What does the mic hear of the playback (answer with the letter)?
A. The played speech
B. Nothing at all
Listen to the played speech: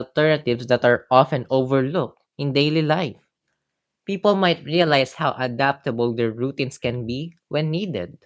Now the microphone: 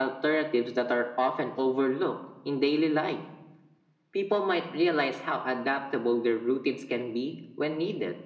A